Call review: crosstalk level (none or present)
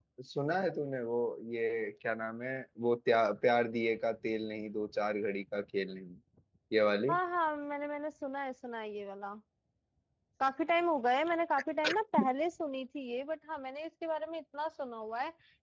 none